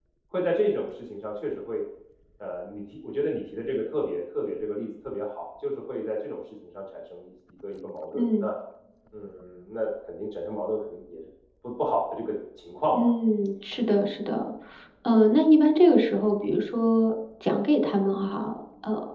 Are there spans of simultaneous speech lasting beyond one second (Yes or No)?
No